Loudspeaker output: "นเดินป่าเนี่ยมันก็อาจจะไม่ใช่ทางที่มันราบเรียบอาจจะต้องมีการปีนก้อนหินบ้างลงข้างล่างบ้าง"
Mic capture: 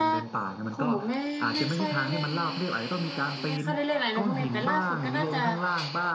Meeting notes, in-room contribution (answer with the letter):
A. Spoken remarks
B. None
A